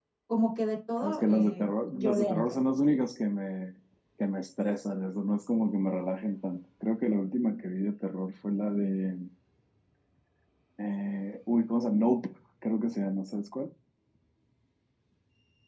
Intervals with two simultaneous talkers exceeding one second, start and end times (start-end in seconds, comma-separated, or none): 1.0-2.6